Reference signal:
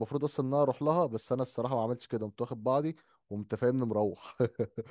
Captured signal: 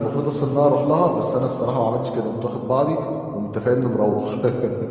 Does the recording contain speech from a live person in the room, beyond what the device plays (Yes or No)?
No